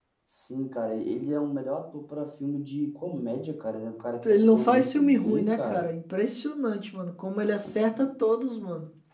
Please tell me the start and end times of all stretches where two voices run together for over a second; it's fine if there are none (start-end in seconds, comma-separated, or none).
4.3-5.9